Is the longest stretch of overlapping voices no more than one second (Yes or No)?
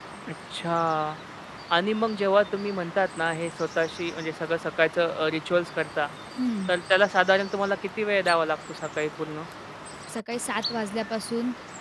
Yes